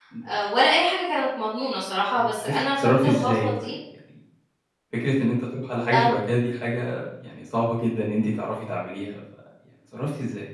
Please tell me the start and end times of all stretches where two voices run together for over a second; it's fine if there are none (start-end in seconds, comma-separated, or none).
2.2-3.7